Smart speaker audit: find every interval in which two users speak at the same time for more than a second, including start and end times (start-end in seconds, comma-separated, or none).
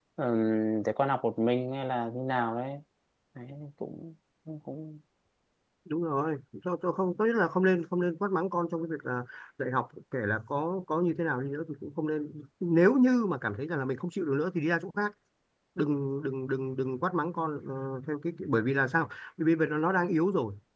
none